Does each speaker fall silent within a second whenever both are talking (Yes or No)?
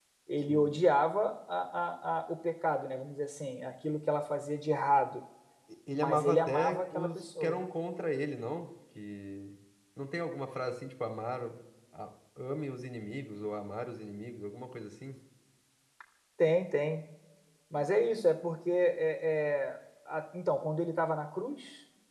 No